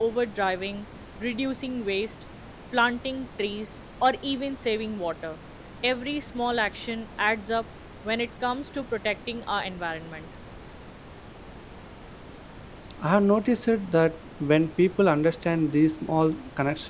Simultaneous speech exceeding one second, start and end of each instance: none

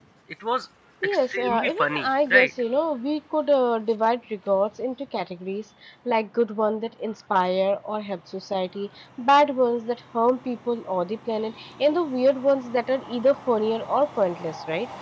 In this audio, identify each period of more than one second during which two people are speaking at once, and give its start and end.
1.0-2.5

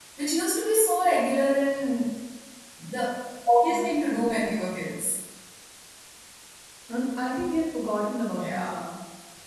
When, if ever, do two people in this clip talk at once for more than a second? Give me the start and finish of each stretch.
none

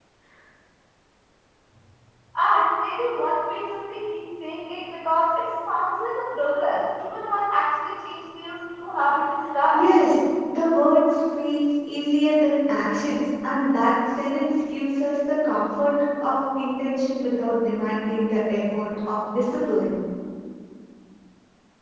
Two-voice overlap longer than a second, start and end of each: none

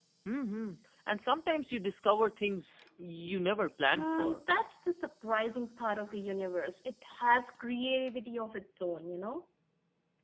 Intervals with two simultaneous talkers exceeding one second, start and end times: none

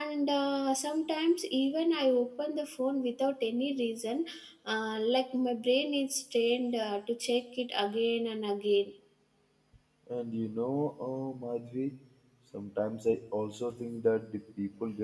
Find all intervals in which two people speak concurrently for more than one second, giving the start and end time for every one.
none

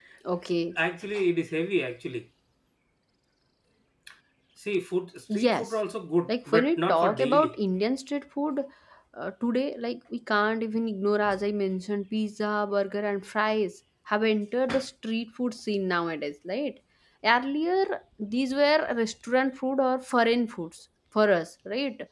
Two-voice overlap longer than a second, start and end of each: 6.3-7.5

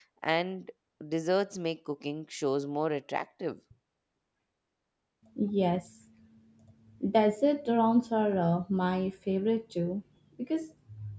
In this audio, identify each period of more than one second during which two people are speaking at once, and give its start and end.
none

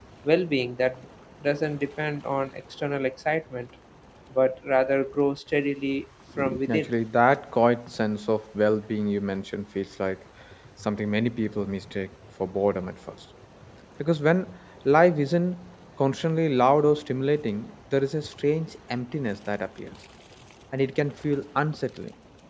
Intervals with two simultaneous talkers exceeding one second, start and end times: none

